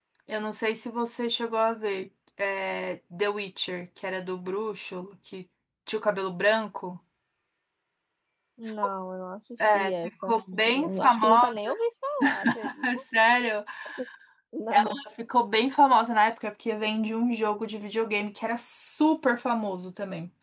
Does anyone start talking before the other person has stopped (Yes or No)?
Yes